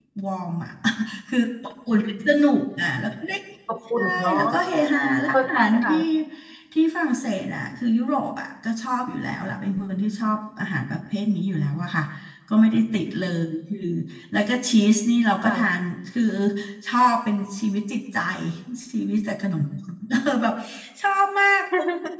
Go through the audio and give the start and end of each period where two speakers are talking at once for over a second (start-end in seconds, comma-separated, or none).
4.0-6.0